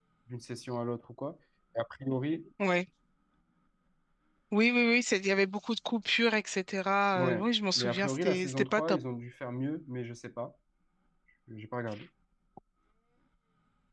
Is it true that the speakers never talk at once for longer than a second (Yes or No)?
No